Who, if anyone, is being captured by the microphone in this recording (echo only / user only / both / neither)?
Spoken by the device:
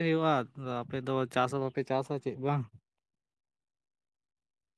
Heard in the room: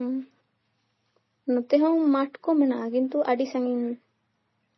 user only